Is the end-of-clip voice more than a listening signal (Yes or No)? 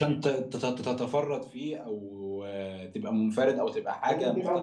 No